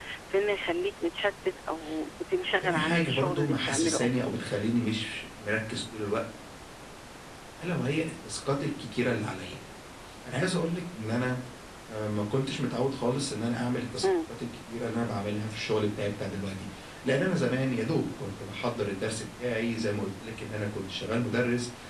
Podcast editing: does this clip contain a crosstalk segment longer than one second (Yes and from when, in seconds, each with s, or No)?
Yes, from 2.6 s